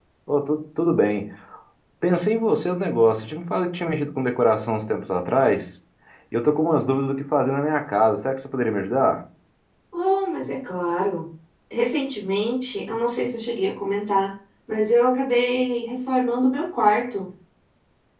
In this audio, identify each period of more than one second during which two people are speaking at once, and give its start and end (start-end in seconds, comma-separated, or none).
none